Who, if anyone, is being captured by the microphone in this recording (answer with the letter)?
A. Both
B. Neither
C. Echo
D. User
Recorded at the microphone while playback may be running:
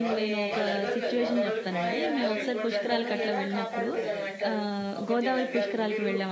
A